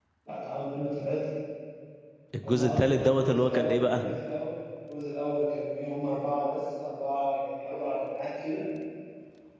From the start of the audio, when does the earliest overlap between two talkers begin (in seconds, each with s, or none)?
2.4 s